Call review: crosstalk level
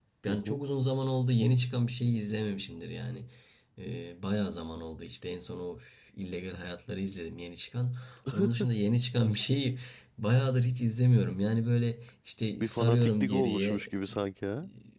present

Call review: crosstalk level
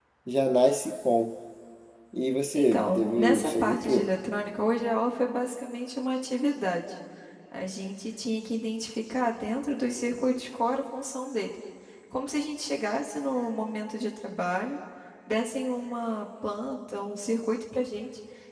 present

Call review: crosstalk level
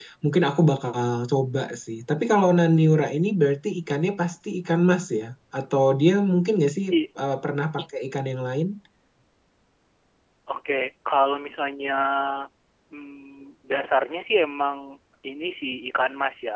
none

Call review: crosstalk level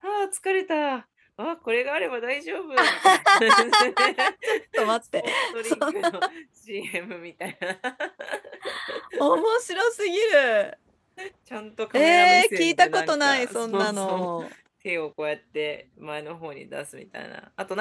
present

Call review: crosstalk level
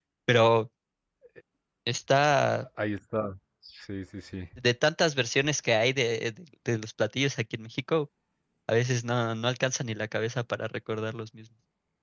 none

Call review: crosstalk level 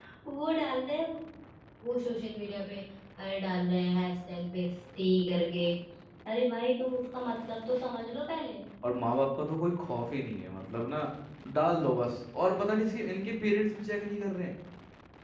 none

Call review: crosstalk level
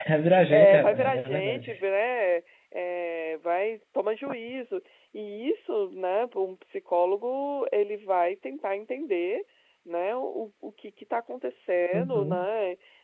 present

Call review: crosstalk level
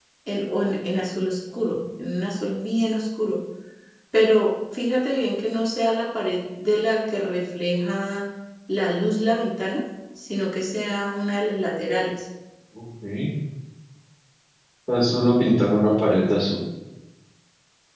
none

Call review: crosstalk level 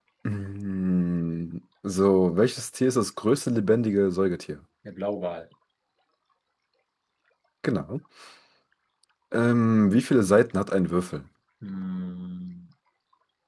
none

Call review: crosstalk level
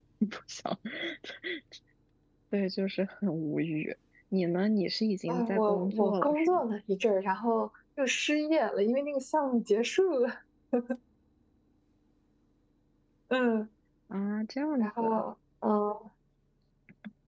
present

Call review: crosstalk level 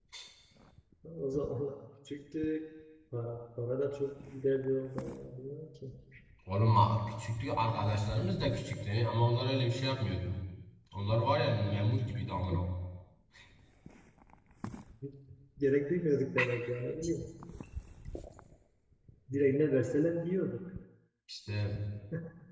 none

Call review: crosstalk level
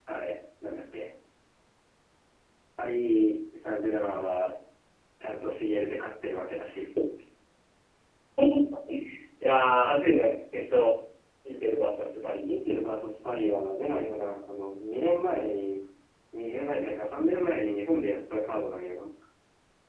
none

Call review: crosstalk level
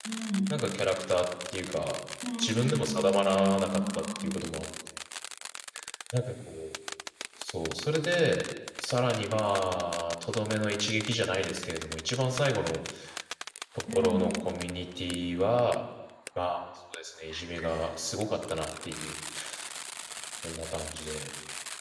present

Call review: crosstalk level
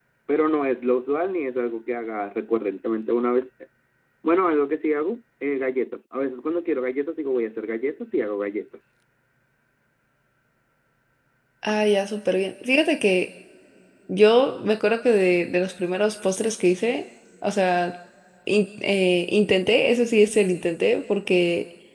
none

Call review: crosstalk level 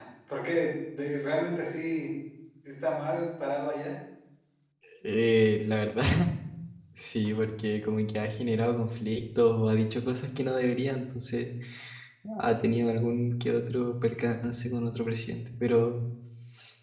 none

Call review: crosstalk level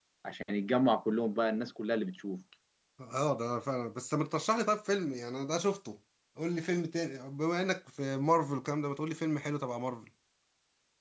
none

